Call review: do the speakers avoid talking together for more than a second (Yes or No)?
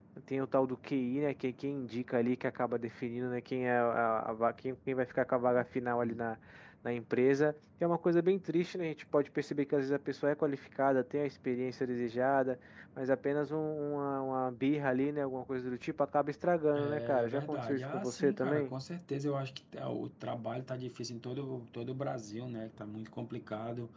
No